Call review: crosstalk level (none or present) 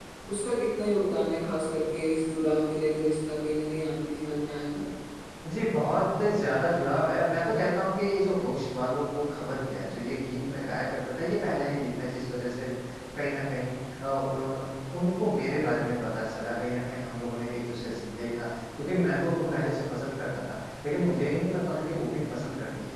none